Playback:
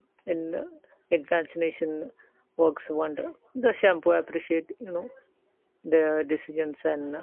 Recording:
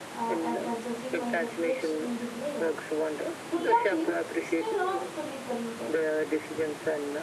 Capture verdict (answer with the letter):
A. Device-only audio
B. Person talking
B